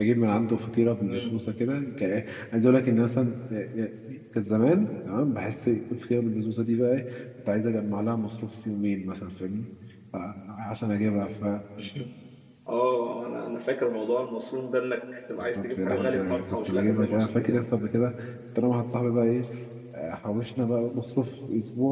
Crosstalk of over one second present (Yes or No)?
Yes